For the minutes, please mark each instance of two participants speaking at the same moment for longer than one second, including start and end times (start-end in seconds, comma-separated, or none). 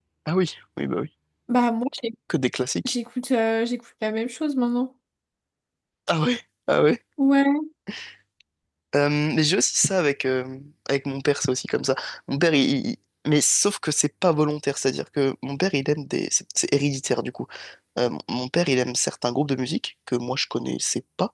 none